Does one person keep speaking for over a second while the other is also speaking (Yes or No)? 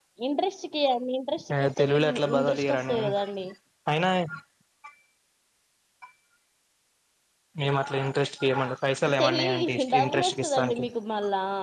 Yes